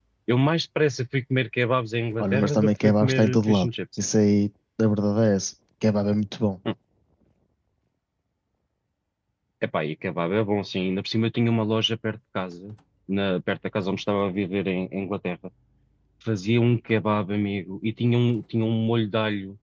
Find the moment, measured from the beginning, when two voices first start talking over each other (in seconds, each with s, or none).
2.2 s